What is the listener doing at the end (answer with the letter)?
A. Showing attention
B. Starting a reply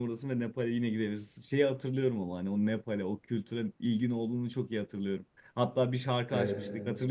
A